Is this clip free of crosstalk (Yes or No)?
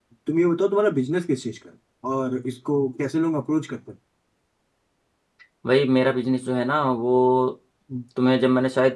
Yes